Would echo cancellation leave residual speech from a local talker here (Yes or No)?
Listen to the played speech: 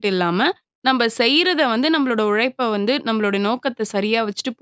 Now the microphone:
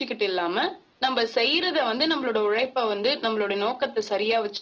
No